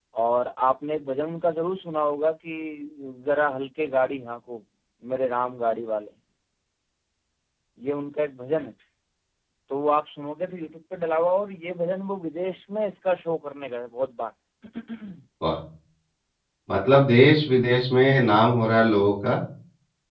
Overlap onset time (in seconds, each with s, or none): none